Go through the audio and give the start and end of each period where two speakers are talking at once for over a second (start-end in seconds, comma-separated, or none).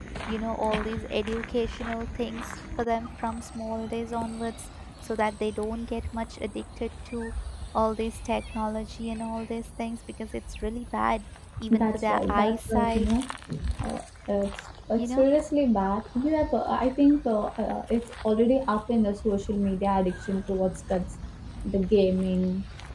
11.7-13.1